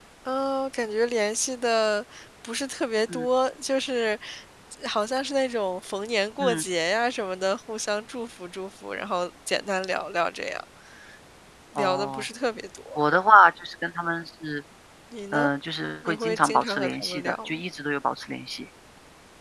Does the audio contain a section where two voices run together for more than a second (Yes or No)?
Yes